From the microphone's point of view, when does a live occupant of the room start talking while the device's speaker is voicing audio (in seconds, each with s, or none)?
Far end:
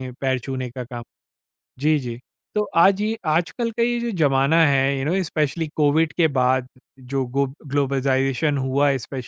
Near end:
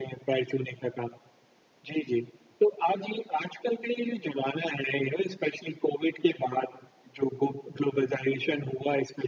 none